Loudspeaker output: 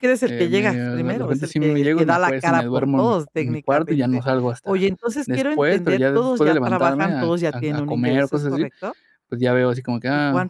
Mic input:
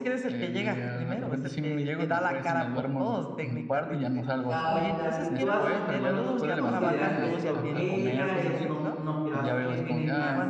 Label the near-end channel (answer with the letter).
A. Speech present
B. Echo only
A